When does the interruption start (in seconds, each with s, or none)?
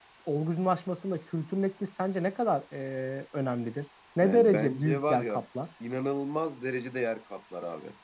4.2 s